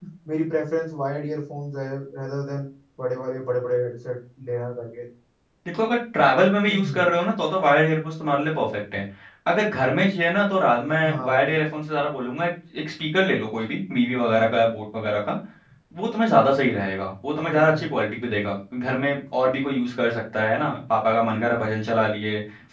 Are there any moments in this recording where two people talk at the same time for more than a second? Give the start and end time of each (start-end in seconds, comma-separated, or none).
none